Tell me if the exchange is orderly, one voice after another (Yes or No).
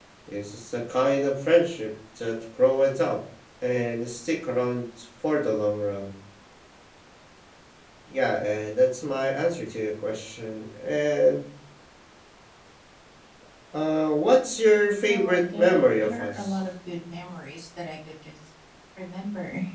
No